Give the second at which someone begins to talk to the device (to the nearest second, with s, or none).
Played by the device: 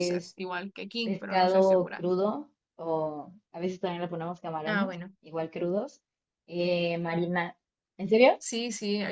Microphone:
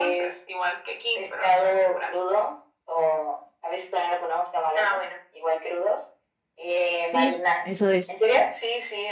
7 s